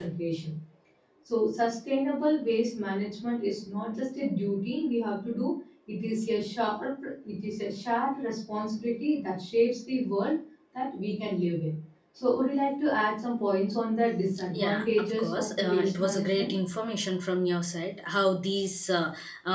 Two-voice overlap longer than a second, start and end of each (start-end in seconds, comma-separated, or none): 14.5-16.5